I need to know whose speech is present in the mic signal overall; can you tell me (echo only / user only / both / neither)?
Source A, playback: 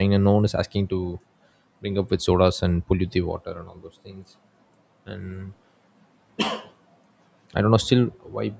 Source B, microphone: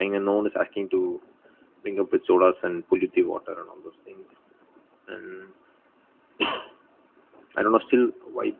echo only